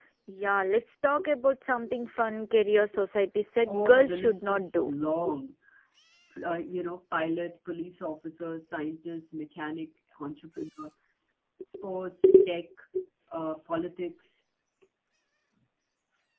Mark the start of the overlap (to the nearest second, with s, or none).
4 s